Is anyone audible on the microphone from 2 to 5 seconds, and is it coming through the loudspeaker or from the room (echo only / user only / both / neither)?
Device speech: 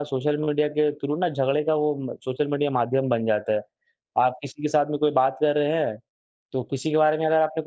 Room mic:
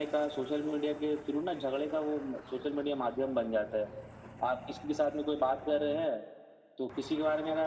echo only